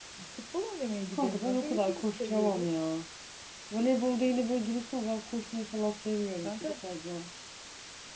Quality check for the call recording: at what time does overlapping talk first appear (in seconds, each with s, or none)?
1.1 s